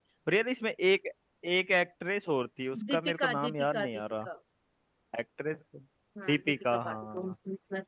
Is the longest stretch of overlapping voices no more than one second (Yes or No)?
No